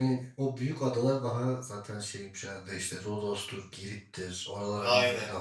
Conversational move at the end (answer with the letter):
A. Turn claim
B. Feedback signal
A